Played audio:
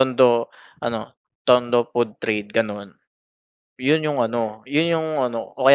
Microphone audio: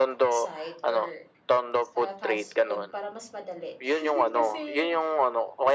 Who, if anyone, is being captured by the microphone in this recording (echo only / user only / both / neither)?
both